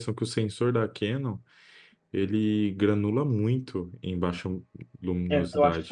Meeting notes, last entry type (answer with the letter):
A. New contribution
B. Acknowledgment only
A